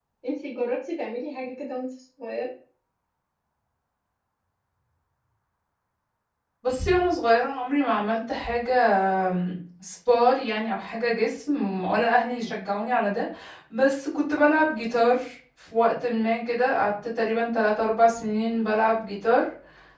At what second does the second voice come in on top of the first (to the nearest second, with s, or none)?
none